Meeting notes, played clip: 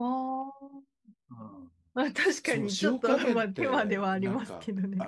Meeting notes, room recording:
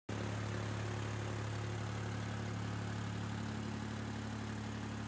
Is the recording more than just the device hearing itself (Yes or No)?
No